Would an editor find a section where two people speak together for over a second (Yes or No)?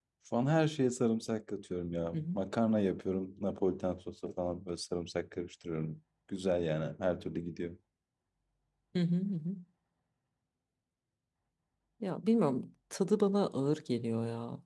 No